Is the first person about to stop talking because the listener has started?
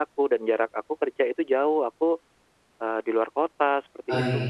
Yes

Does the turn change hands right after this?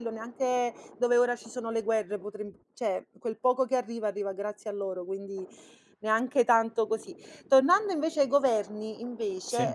No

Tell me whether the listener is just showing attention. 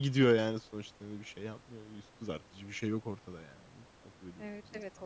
No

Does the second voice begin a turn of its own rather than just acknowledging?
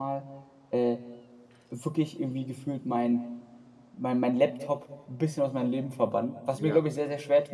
No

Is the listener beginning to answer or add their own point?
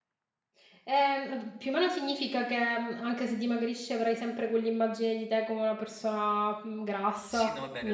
Yes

